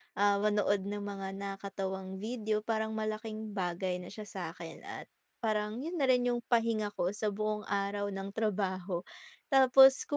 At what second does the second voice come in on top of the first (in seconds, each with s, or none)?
none